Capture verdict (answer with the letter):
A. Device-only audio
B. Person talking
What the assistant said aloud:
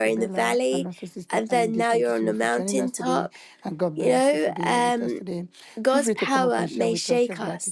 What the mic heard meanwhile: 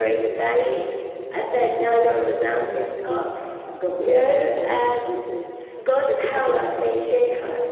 A